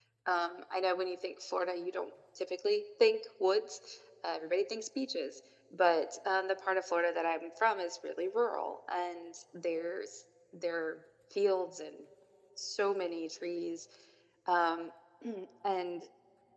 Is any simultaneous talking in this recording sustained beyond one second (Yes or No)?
No